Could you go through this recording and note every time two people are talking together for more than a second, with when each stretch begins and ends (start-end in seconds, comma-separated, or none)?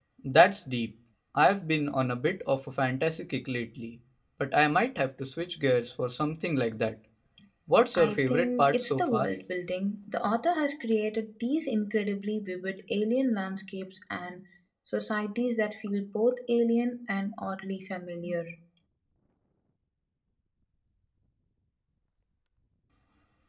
8.0-9.3